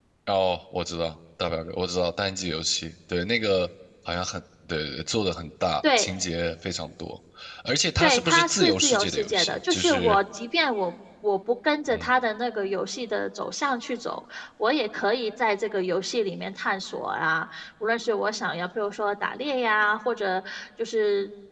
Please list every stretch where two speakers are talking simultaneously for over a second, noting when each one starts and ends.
8.0-10.2

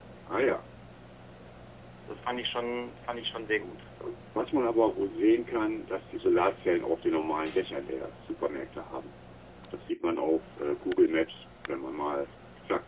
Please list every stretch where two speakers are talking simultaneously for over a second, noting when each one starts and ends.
none

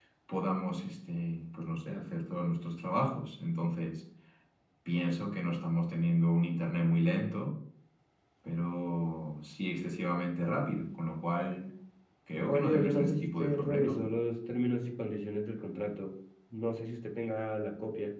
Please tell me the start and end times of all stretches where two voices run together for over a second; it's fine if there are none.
12.4-14.1

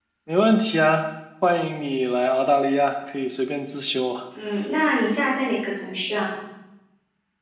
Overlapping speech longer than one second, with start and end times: none

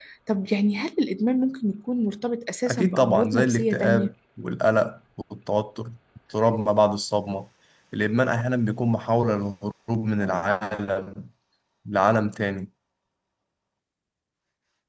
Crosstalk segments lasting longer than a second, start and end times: 2.7-4.1

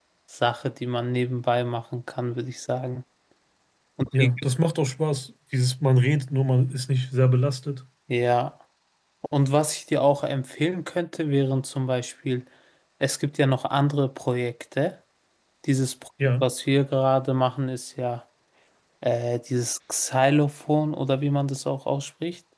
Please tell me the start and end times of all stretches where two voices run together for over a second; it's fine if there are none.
none

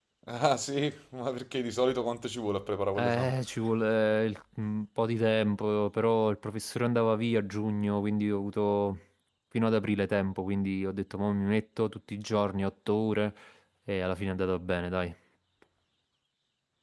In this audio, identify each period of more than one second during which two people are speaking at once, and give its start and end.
none

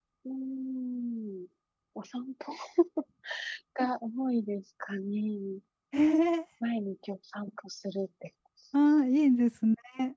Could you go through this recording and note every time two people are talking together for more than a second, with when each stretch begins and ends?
none

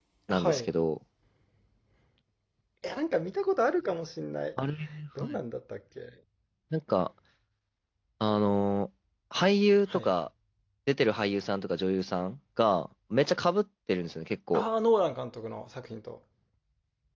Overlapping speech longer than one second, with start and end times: none

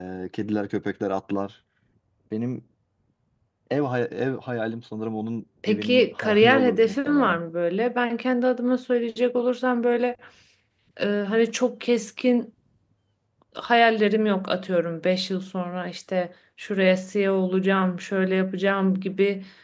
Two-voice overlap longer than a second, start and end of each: 5.7-7.4

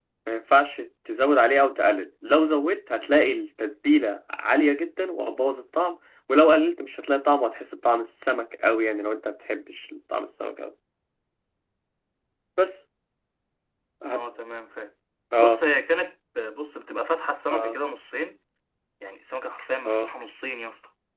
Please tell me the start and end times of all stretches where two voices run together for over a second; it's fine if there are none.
none

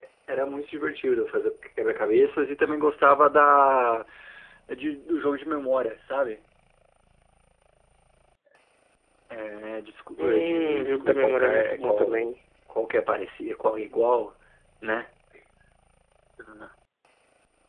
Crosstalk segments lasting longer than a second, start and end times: 10.2-12.3

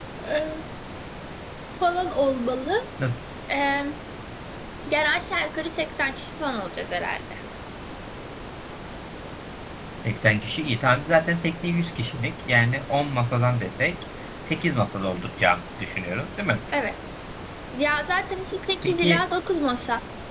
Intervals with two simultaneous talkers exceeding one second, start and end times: none

